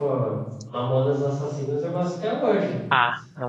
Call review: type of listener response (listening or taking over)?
taking over